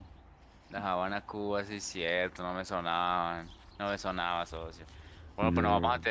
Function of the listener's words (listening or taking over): listening